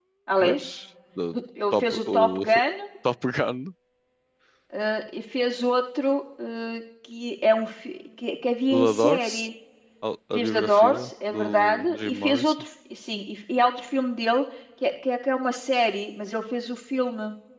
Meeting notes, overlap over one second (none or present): present